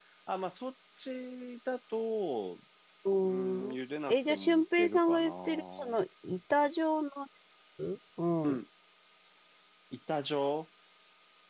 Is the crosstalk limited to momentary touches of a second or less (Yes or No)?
No